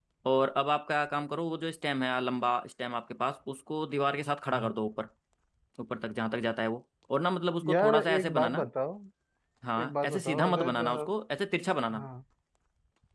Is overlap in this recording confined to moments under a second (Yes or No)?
No